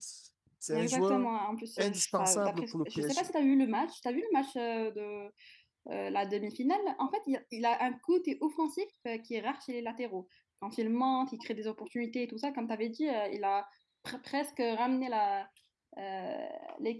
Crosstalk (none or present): present